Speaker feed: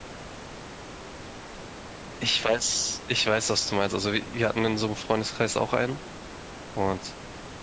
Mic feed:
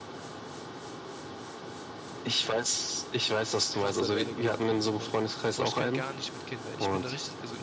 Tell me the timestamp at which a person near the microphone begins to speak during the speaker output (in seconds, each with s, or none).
3.7 s